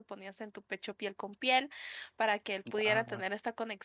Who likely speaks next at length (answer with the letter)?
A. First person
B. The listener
A